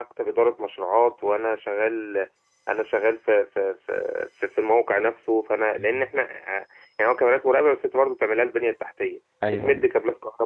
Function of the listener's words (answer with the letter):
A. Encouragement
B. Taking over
A